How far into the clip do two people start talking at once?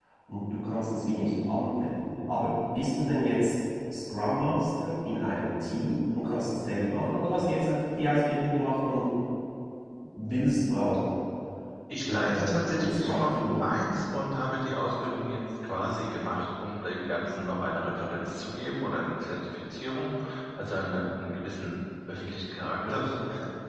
12.1 s

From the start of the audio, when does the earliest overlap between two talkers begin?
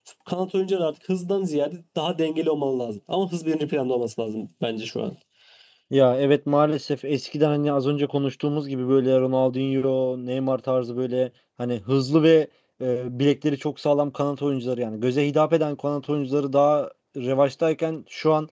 none

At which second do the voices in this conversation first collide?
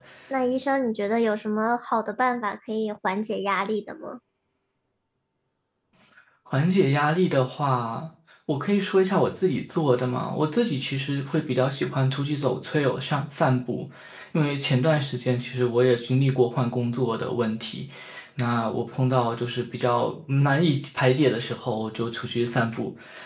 none

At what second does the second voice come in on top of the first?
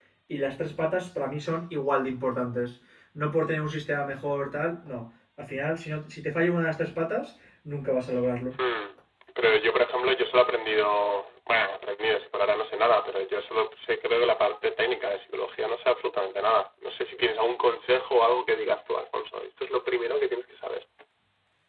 none

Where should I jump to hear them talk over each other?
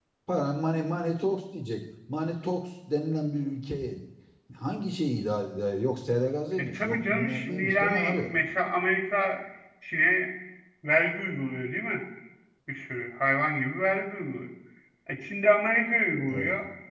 6.6 s

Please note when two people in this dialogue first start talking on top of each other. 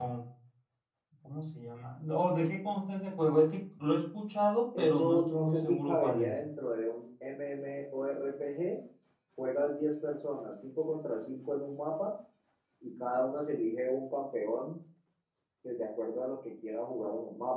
4.7 s

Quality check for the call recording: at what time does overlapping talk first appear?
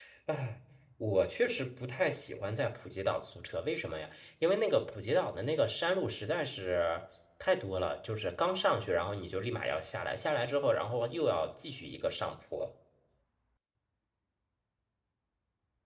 none

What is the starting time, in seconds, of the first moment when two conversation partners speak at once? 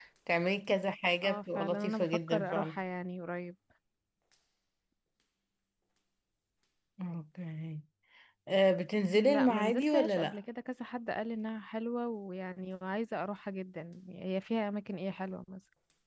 1.2 s

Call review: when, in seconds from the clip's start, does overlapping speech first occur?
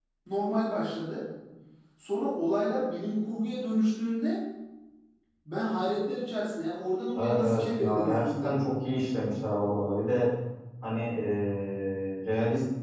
7.2 s

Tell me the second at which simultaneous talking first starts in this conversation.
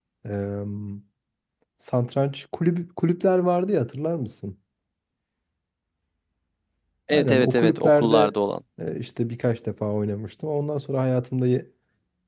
7.1 s

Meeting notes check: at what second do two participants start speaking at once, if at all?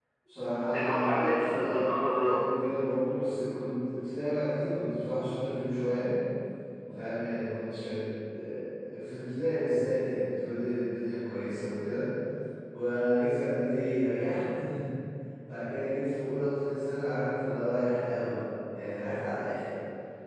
0.7 s

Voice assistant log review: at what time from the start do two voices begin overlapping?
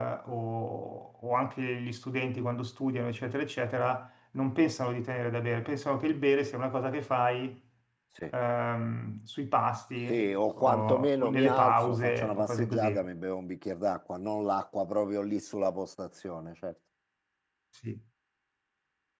10.1 s

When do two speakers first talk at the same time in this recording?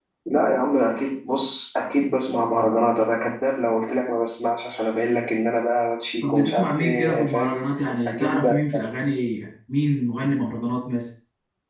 6.2 s

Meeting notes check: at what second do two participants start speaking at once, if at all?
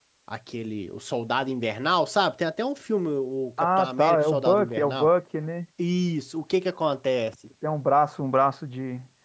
3.6 s

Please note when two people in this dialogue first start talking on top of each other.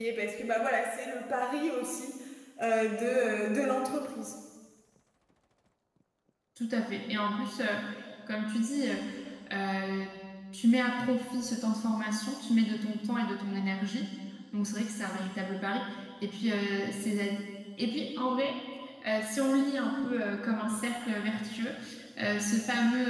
none

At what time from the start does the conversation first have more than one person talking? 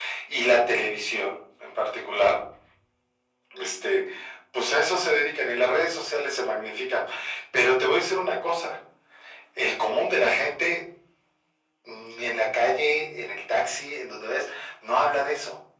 none

